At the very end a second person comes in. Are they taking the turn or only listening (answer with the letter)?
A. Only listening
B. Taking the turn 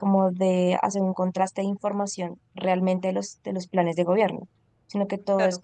A